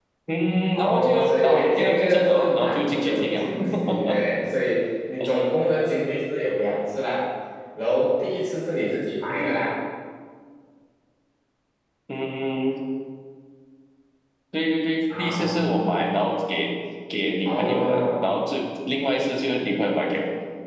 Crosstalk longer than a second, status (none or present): present